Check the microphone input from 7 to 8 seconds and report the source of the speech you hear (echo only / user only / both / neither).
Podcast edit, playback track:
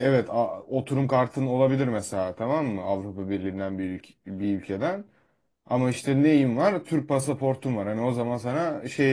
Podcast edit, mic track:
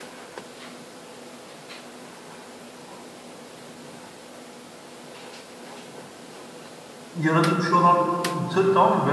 user only